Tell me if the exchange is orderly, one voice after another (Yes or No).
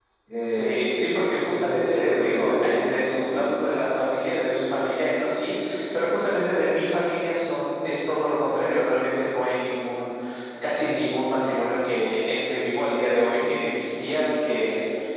No